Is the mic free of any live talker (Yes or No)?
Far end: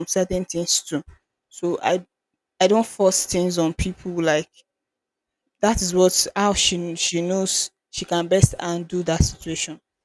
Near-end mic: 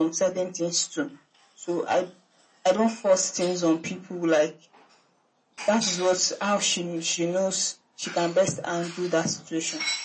Yes